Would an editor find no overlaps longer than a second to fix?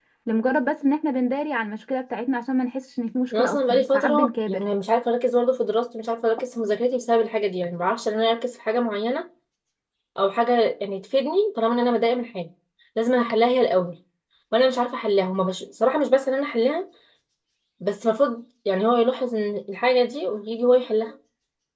No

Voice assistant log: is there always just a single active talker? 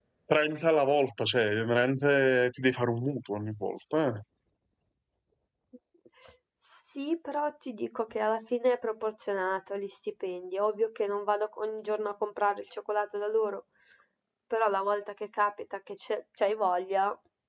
Yes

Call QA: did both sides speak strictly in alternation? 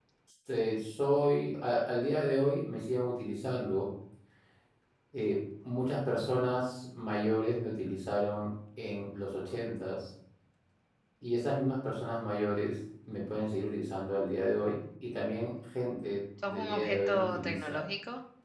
No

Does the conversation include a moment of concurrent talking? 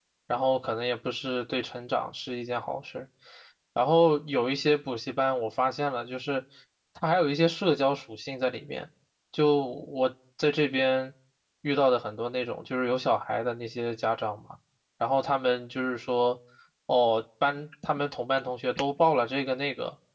No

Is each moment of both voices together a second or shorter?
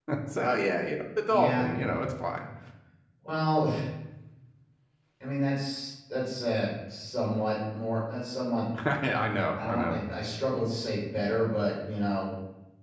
Yes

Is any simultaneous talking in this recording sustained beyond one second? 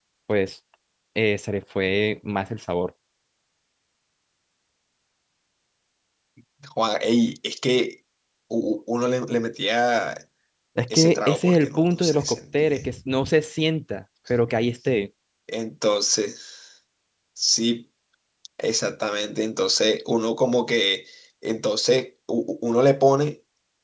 Yes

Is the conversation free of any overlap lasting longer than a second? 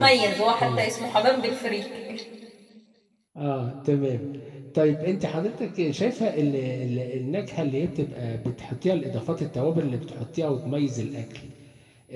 Yes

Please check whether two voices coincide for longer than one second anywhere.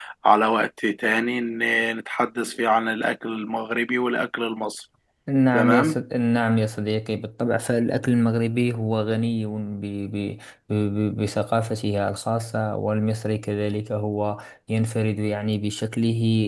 No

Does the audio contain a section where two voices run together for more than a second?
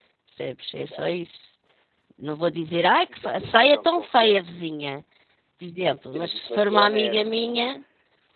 Yes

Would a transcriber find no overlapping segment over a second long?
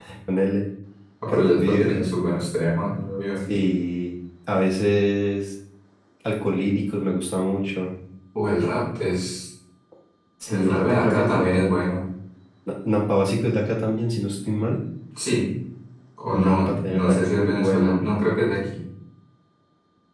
No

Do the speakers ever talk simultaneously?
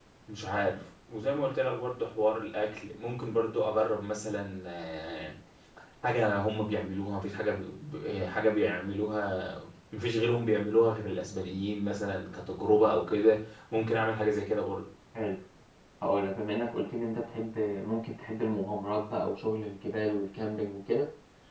No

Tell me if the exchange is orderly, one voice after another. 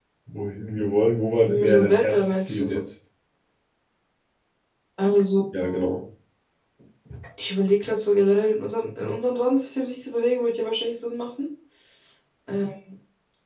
No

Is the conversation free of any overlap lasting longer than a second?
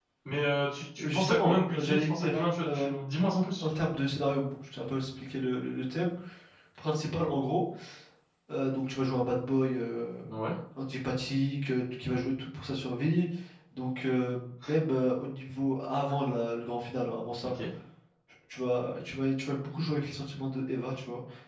No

